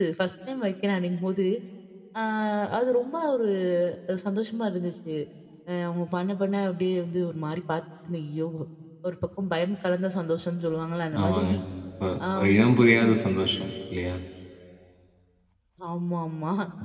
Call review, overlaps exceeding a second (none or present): none